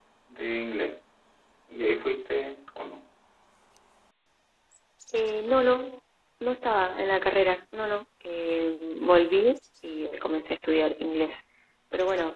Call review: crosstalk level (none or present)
none